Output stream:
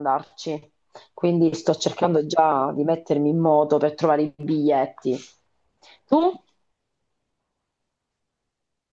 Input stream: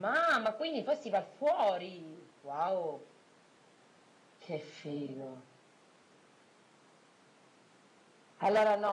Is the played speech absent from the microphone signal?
Yes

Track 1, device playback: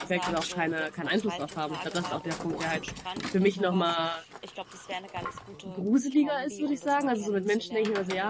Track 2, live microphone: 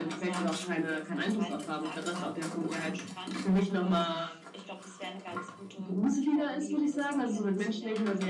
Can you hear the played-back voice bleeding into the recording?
Yes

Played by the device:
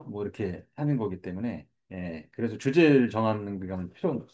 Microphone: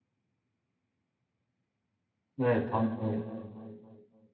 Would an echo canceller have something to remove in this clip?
No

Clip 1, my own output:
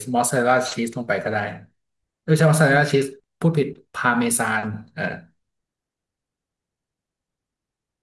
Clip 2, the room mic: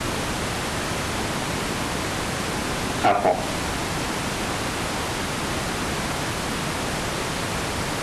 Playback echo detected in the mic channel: No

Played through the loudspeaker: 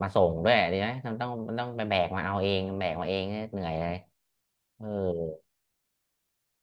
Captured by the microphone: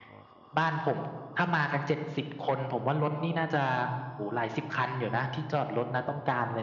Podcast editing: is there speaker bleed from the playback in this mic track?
No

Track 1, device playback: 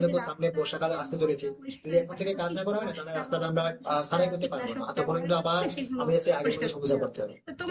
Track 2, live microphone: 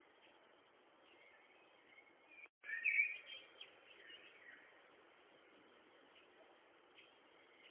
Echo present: No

